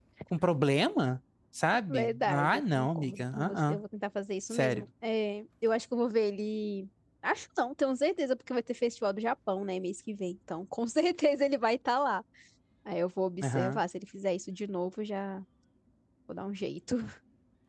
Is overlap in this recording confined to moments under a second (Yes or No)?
No